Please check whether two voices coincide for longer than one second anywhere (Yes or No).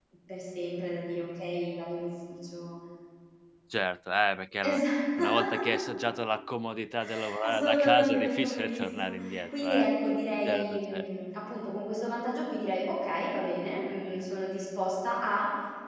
Yes